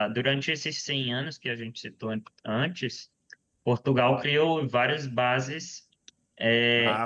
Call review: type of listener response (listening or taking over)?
listening